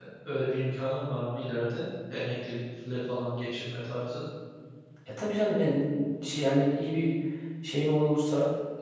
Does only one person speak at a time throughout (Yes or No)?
Yes